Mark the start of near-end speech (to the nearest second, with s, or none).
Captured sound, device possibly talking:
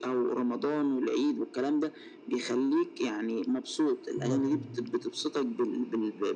4 s